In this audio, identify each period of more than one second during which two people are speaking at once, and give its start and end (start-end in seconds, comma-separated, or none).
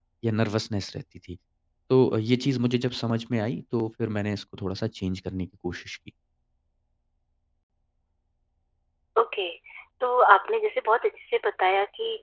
none